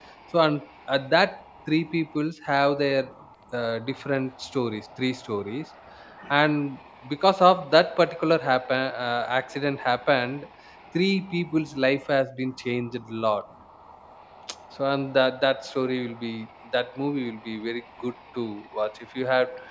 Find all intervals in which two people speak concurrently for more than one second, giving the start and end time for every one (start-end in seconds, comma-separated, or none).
none